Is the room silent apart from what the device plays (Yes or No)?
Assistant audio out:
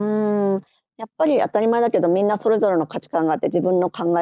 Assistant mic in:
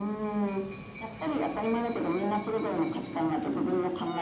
Yes